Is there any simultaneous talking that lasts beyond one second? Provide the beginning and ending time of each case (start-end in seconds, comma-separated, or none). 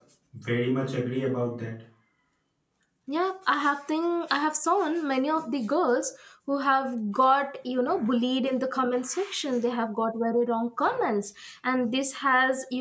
none